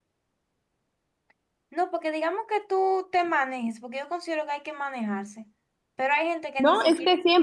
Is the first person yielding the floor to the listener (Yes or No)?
Yes